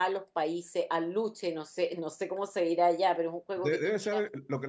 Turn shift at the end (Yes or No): Yes